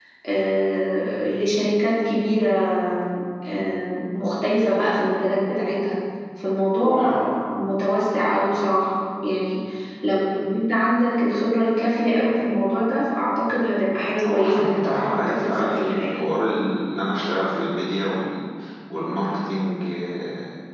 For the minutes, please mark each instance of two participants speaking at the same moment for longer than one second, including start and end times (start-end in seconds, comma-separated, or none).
14.2-16.2